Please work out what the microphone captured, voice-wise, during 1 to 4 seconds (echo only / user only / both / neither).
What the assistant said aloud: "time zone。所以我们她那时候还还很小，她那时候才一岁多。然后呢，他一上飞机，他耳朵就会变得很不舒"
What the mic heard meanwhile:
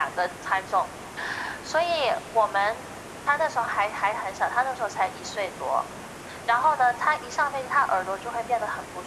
echo only